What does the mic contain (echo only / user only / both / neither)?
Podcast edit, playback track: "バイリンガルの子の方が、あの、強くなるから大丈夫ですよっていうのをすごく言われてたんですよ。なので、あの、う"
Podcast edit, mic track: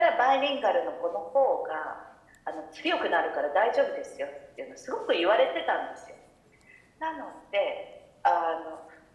echo only